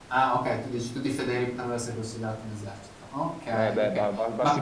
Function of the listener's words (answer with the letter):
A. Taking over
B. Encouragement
A